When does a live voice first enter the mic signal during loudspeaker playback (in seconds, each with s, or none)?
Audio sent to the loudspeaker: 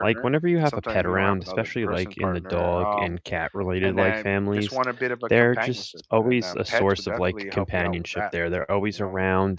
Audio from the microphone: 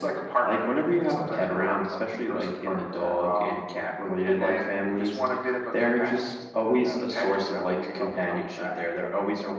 none